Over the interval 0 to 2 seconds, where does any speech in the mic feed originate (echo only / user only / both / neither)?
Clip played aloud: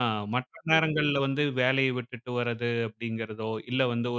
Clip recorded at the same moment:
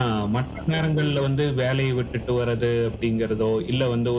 echo only